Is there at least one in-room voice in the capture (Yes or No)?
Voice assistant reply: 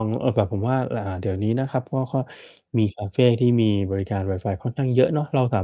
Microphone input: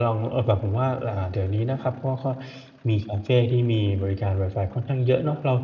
No